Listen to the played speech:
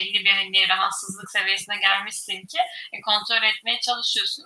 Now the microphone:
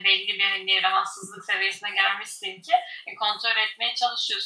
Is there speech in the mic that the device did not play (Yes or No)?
No